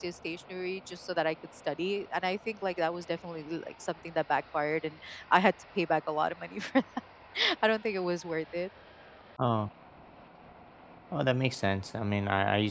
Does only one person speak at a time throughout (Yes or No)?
Yes